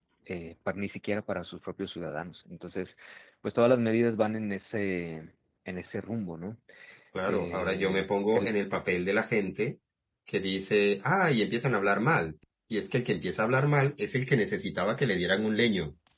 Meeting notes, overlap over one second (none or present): present